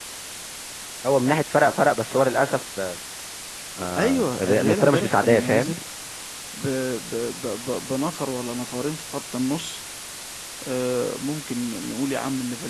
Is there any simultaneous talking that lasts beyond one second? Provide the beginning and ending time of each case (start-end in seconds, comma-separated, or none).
4.0-5.7